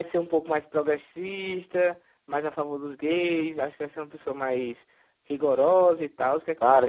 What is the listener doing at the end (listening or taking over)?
taking over